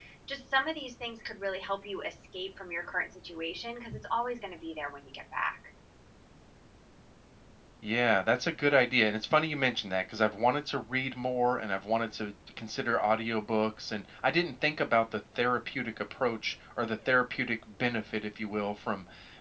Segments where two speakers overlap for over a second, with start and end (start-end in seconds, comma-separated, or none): none